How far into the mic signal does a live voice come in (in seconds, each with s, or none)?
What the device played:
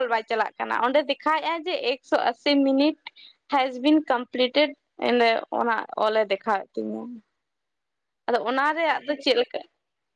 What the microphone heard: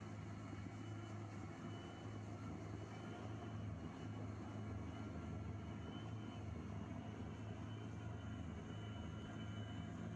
none